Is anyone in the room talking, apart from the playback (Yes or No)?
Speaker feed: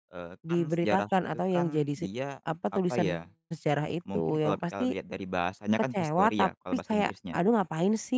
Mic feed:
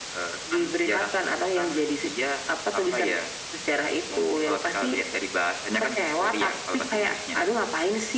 No